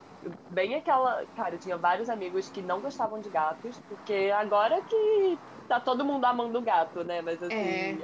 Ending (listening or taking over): listening